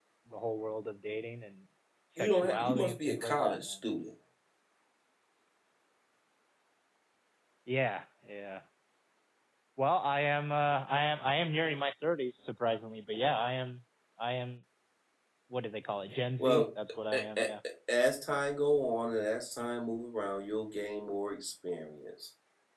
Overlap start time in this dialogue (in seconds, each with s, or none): 2.2 s